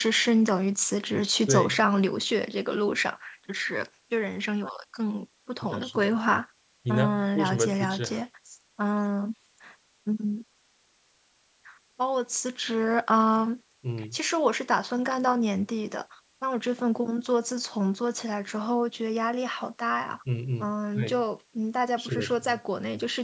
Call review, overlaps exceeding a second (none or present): present